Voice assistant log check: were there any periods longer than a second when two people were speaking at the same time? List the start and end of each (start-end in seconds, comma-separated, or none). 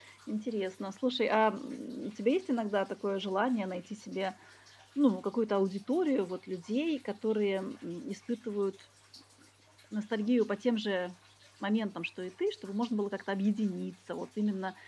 none